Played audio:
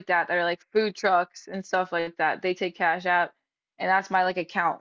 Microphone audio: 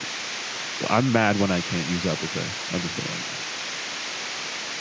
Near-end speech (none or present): present